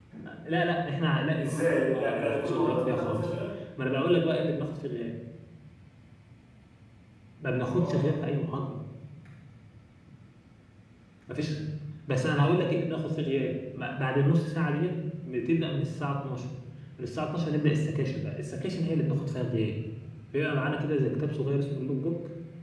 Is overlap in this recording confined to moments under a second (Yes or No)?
No